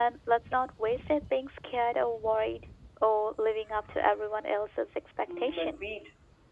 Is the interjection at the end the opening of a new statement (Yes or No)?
Yes